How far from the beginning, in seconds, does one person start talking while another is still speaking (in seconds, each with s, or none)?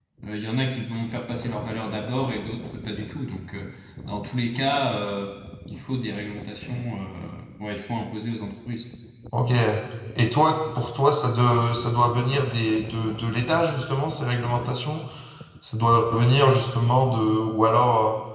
none